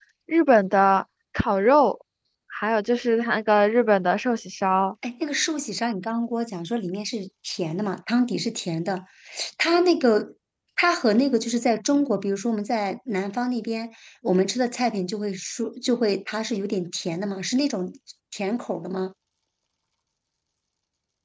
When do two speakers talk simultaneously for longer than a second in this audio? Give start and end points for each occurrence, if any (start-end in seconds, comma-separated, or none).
none